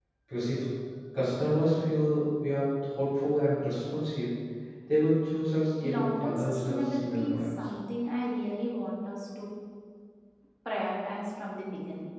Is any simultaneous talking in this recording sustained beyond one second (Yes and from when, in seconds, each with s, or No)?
Yes, from 5.8 s